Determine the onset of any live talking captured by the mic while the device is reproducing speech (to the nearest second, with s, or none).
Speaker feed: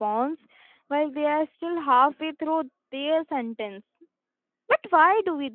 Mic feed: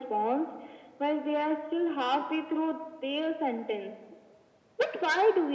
none